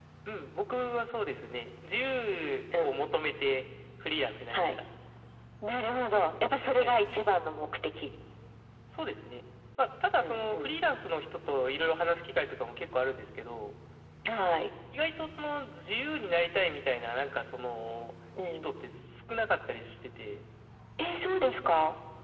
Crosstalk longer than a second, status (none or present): none